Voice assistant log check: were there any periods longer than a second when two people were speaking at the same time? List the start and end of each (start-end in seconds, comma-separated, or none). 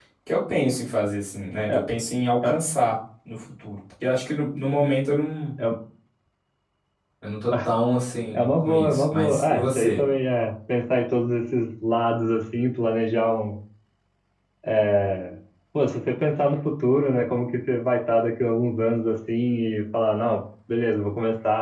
8.3-10.0